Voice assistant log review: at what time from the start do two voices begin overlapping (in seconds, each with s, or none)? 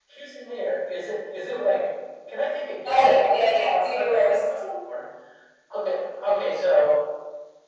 2.8 s